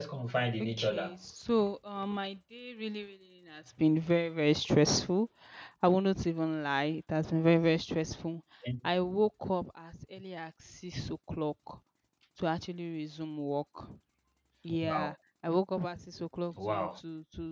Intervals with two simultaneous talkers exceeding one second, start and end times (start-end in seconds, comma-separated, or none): none